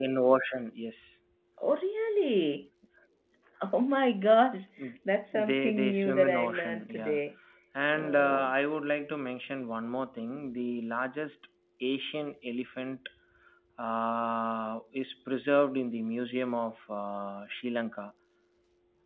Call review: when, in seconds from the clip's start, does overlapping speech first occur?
5.3 s

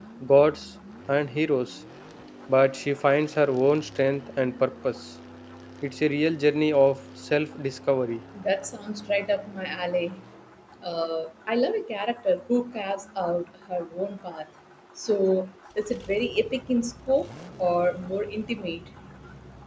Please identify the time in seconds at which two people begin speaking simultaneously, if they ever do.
none

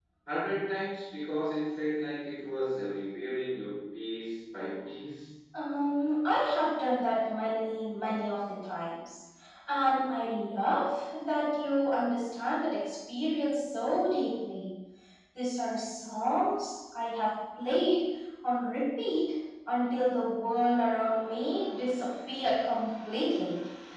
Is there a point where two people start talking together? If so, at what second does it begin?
none

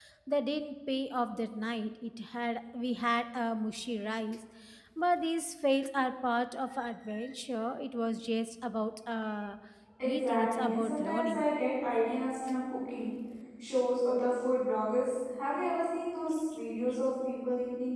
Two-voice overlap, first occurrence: 10.0 s

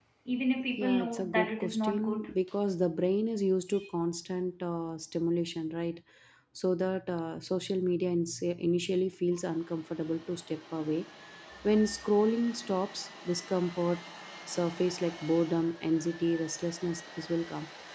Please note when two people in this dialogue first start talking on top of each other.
0.8 s

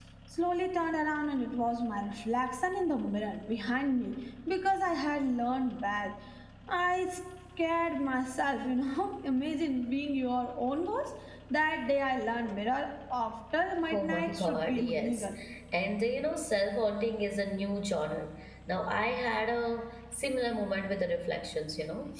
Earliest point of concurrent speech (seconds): 13.8 s

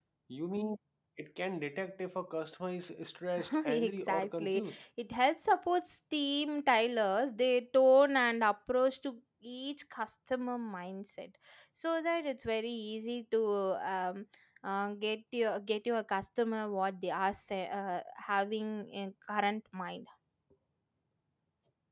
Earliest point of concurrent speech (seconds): 3.4 s

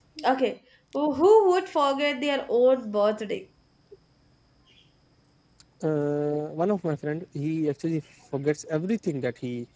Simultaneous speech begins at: none

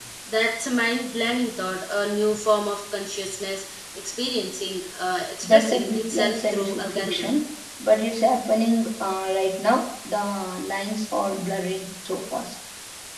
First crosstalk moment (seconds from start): 5.4 s

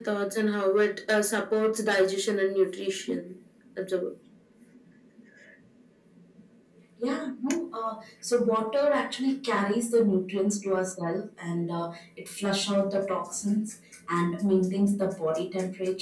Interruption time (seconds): none

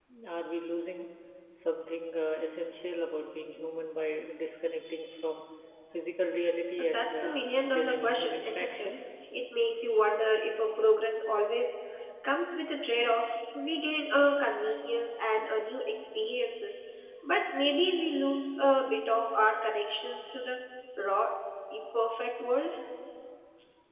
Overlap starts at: 6.8 s

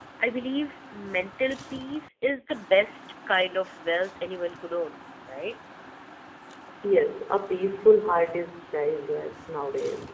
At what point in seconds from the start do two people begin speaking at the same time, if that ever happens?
none

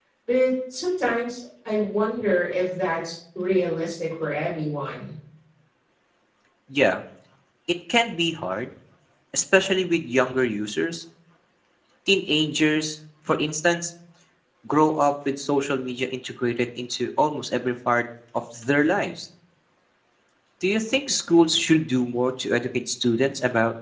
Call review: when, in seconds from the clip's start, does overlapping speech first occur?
none

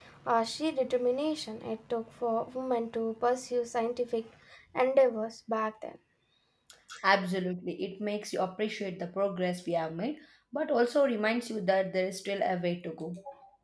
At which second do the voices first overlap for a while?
none

